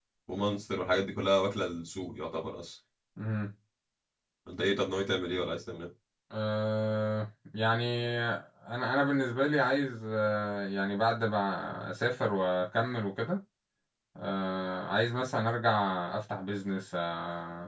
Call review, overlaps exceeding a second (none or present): none